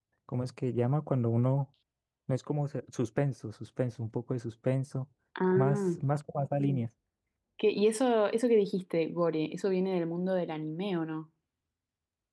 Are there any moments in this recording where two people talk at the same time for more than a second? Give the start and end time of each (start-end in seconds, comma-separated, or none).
none